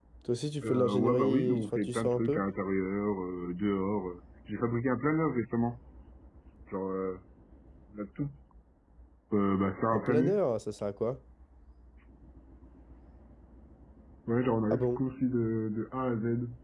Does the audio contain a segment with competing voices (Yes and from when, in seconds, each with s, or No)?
Yes, from 0.6 s